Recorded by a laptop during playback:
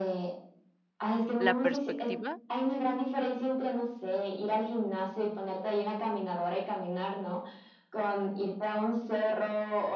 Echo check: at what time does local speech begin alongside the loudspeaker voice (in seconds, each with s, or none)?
1.4 s